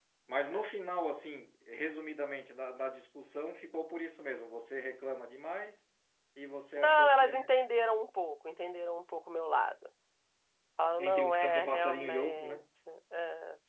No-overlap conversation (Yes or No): No